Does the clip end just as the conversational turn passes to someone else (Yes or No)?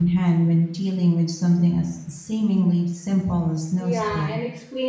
Yes